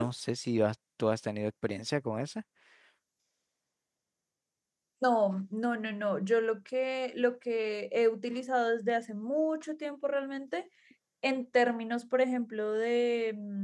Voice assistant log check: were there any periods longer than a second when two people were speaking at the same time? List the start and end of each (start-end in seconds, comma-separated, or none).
none